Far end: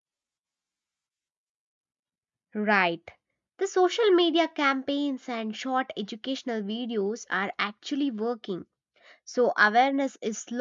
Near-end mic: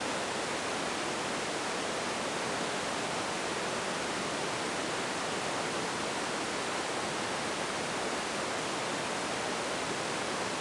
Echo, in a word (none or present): none